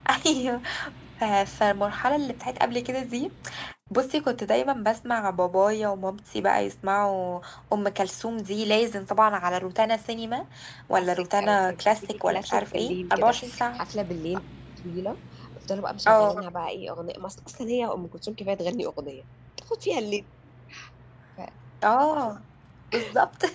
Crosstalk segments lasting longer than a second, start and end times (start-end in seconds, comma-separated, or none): 11.0-13.4